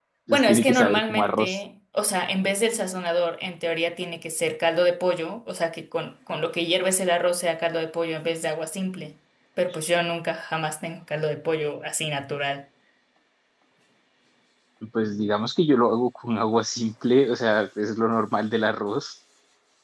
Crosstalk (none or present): present